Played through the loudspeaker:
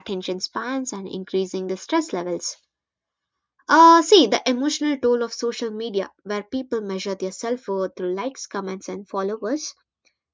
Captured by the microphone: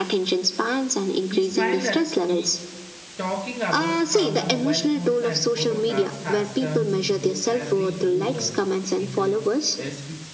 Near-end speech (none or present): present